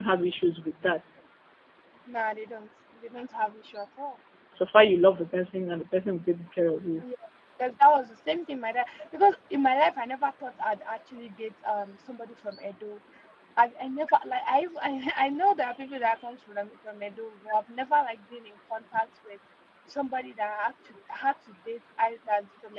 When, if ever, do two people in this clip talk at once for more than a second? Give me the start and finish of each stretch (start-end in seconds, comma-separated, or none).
none